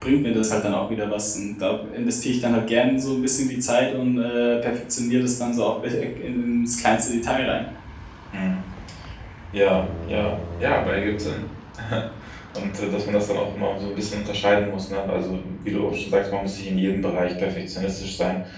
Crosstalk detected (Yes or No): No